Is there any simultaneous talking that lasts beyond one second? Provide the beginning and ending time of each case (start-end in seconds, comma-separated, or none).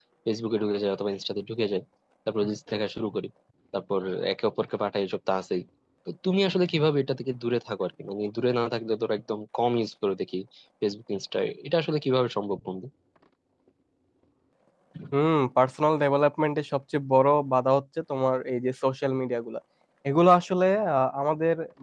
none